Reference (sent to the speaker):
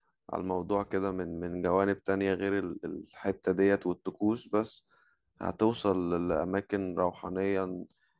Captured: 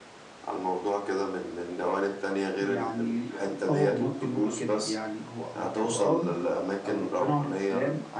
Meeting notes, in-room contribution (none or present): present